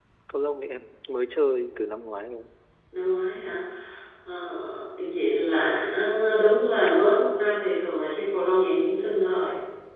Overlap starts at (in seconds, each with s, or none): none